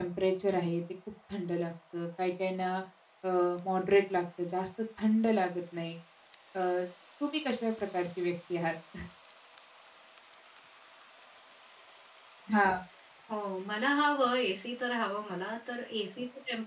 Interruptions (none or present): none